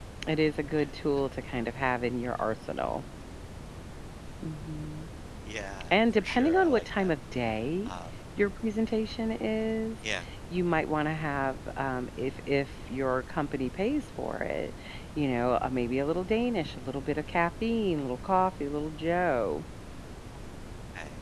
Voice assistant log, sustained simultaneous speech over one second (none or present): present